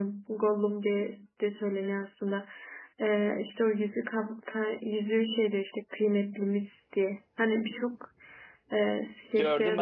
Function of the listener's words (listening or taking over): taking over